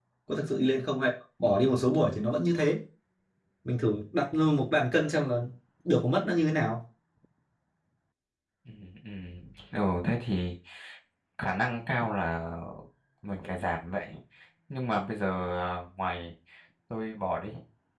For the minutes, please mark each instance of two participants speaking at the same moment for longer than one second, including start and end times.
none

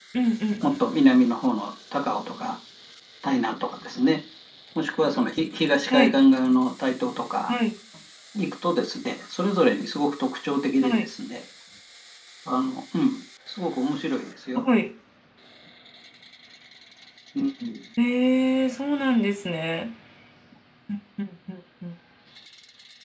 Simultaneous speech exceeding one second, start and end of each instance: none

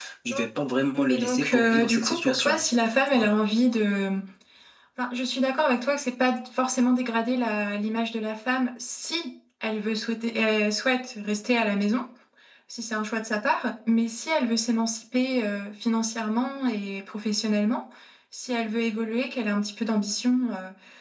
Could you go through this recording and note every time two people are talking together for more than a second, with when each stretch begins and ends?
1.1-2.6

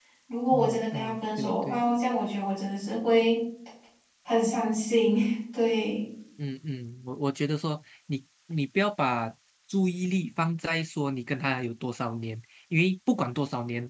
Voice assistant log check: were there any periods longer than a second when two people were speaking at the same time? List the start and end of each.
0.5-1.8

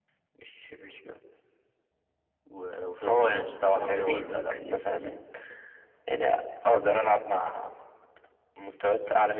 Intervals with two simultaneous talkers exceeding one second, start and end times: 3.1-4.5

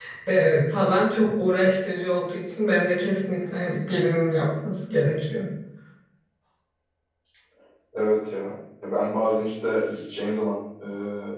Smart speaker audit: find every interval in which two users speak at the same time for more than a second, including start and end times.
none

